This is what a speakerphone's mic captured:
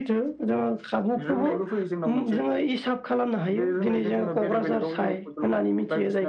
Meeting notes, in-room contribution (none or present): none